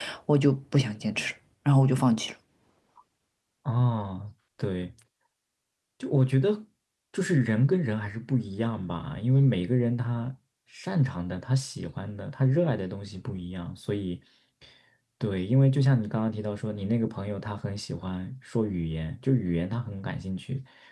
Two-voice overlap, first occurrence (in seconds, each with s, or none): none